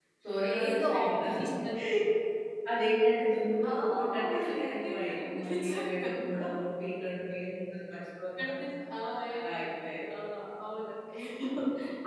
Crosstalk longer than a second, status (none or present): present